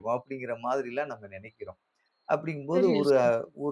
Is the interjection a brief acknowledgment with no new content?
Yes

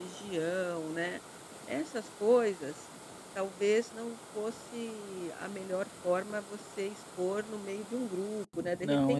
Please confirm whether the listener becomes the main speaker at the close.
Yes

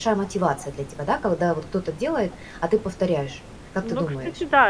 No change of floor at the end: No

